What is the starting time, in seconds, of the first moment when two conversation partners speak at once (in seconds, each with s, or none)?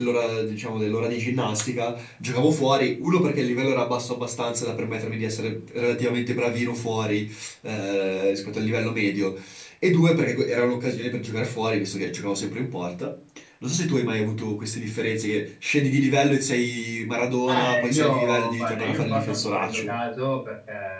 17.5 s